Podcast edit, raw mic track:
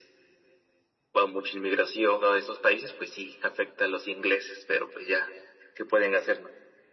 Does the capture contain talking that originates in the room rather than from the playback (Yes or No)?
No